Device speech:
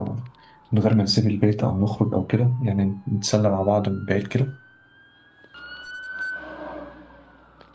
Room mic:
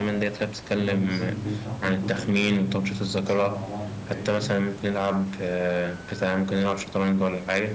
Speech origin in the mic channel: both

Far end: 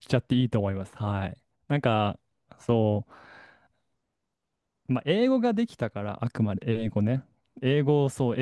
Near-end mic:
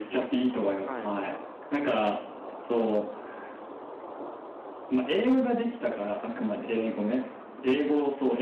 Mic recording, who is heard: both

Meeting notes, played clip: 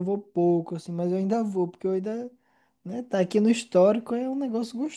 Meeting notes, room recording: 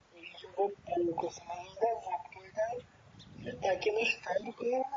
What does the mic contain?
echo only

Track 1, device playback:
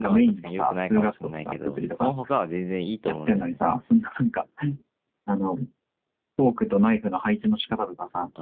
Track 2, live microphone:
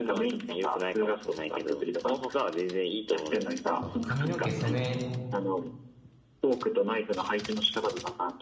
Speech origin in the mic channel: both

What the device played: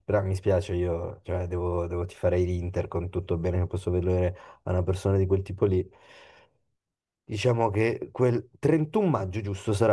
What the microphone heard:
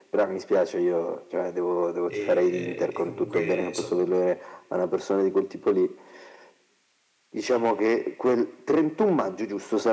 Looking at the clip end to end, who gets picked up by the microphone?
both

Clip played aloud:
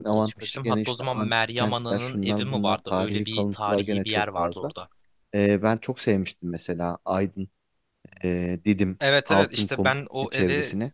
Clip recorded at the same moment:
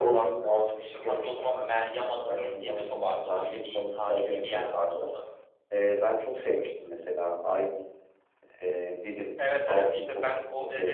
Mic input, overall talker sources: echo only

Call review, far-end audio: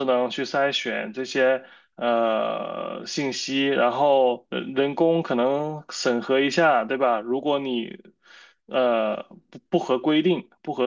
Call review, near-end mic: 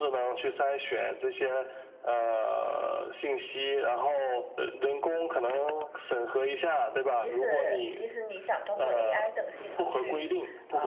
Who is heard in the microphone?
both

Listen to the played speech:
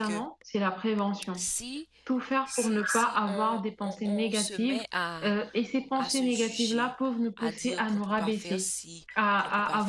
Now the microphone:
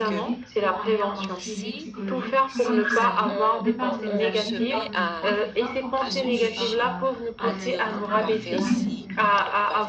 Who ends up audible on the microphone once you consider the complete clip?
both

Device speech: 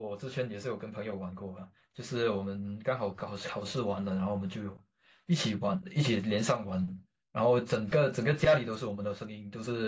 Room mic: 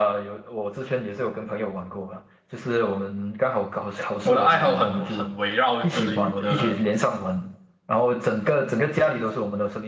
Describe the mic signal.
both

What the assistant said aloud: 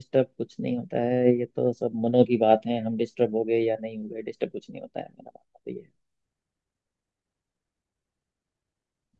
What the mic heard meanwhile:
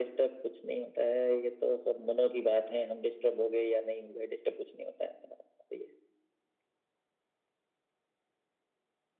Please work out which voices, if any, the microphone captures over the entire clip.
echo only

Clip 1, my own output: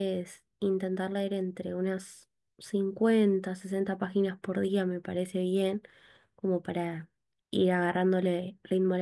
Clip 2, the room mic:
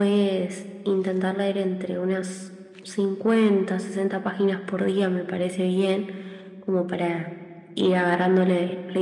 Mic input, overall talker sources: echo only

